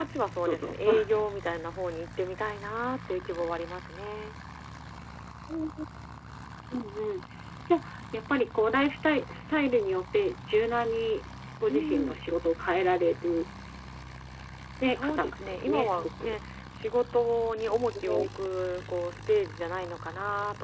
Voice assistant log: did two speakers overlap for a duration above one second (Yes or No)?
Yes